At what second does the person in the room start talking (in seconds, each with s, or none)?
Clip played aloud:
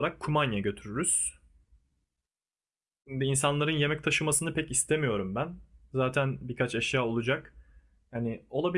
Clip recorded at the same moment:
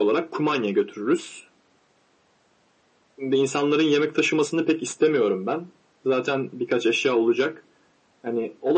none